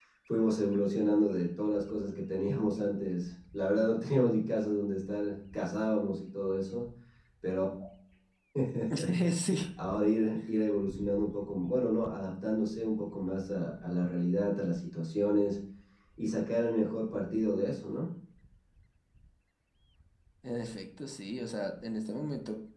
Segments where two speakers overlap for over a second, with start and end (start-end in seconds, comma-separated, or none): none